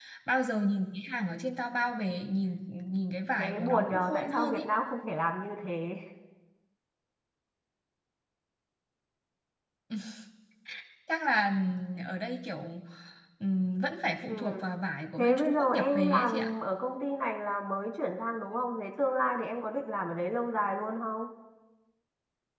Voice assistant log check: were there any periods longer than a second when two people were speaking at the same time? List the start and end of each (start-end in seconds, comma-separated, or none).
3.4-4.6, 15.2-16.5